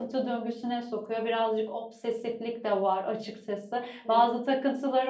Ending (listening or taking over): listening